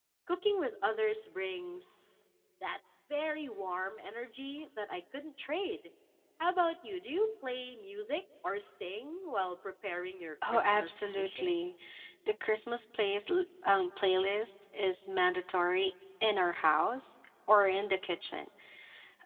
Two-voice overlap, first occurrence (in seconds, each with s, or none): 10.4 s